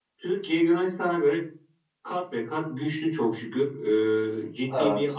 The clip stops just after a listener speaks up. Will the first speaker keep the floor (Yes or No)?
Yes